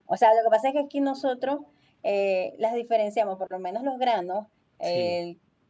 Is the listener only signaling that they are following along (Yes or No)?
Yes